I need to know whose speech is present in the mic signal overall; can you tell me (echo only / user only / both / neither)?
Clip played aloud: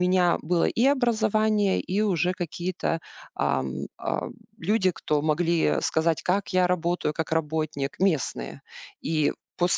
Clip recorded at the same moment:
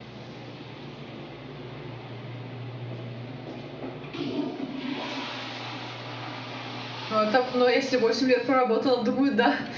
user only